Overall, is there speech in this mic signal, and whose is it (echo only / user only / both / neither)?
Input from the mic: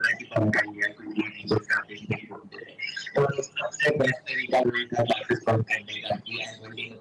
echo only